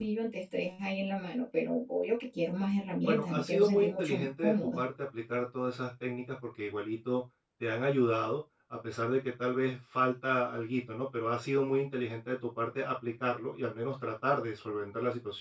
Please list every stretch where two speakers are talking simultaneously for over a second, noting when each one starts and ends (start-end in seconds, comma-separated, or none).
3.0-4.8